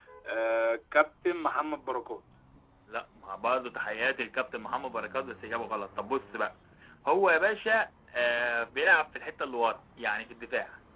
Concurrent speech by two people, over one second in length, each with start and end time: none

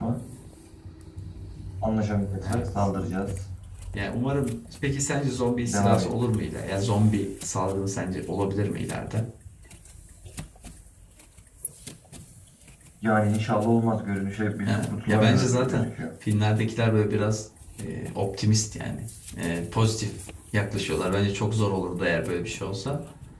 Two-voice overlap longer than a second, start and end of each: 14.6-15.8

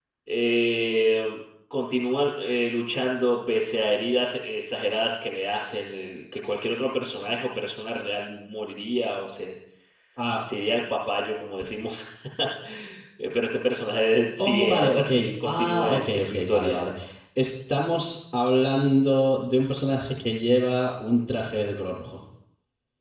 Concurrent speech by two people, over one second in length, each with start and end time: 14.4-16.8

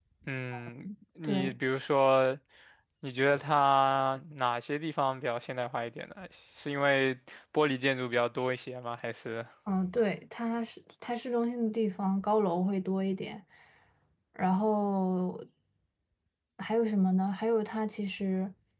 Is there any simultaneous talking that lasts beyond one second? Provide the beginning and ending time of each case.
none

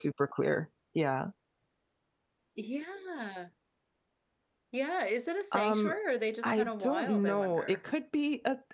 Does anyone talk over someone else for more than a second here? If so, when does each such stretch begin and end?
6.4-7.8

